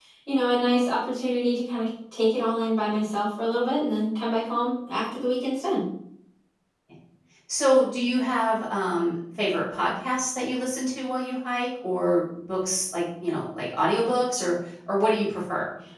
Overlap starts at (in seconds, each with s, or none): none